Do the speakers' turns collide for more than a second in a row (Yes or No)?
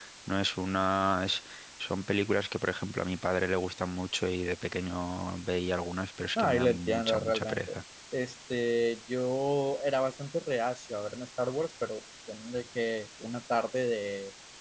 Yes